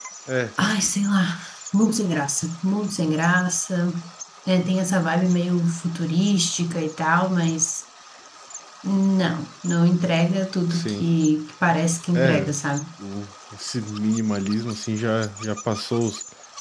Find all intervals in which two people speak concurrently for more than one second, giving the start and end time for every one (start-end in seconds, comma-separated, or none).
none